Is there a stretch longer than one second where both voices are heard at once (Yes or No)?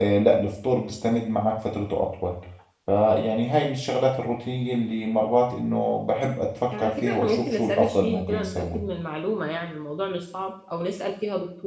Yes